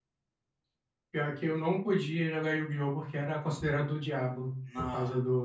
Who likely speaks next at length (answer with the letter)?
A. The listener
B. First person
B